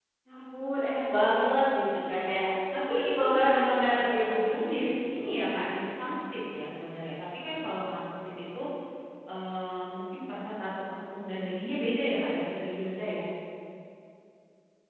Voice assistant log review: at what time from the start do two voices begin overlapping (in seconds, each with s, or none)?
2.6 s